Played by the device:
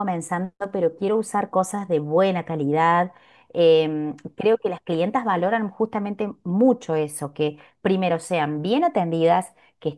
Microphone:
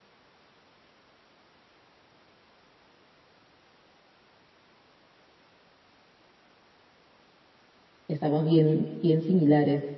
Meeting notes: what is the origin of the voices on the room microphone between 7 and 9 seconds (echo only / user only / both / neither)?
user only